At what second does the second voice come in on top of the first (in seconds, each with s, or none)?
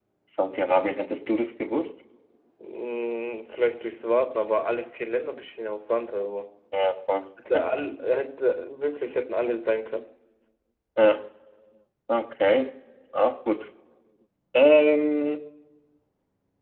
none